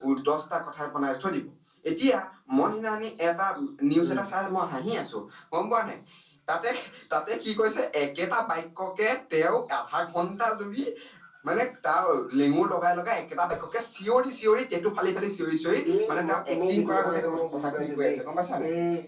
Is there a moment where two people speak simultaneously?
Yes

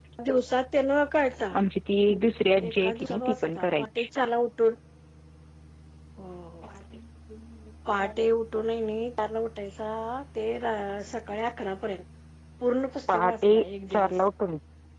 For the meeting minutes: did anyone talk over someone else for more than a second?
Yes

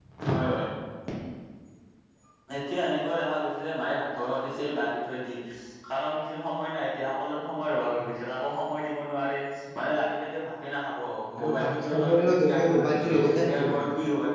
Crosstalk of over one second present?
Yes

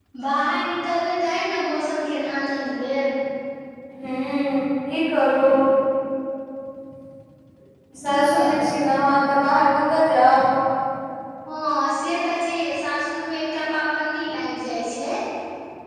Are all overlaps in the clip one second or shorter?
Yes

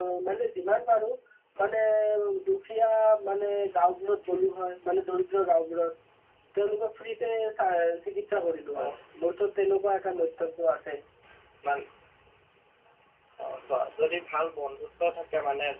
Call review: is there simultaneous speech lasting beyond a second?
No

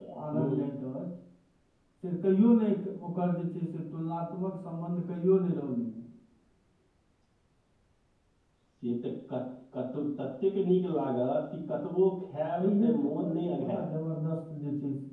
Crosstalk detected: Yes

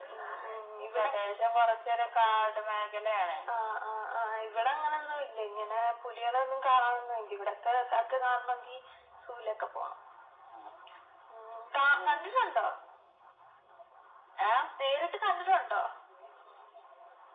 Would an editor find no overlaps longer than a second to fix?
Yes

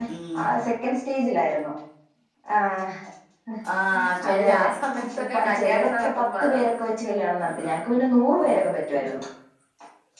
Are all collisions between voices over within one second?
No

